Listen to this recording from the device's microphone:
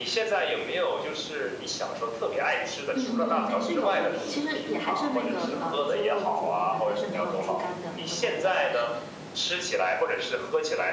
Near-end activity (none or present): present